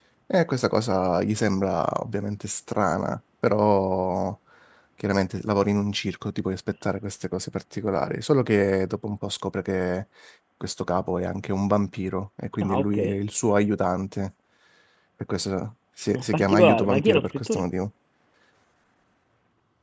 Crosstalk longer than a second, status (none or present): present